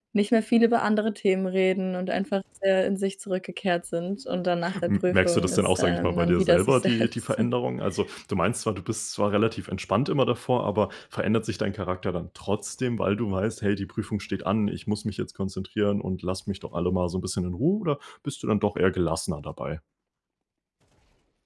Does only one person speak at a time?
No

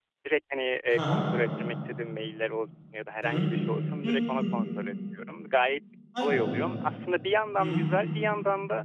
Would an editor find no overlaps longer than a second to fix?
Yes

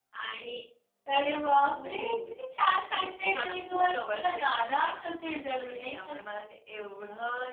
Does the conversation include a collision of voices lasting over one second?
Yes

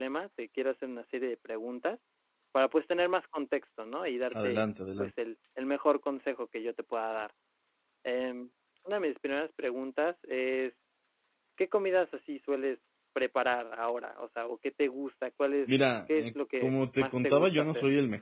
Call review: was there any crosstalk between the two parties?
Yes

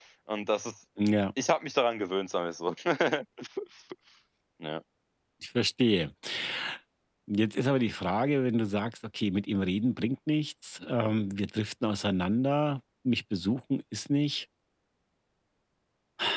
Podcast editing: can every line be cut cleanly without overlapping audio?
Yes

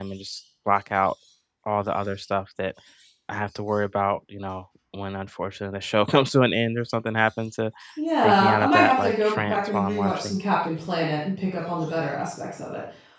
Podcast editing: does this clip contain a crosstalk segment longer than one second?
Yes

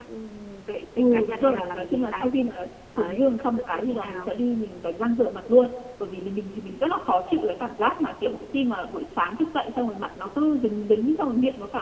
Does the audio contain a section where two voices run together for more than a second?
Yes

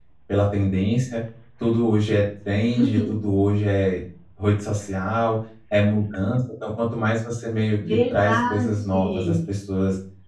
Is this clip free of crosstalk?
No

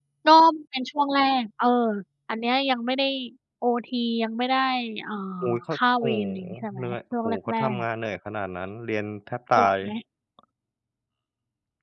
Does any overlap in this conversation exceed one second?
Yes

